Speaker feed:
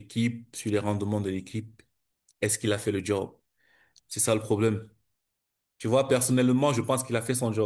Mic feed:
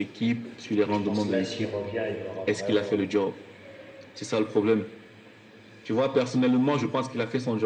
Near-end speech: present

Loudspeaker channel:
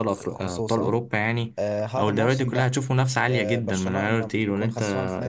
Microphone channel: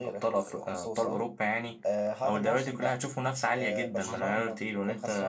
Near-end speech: present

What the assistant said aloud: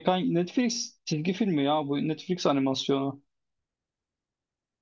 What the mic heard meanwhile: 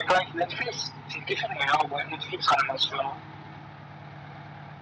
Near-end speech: none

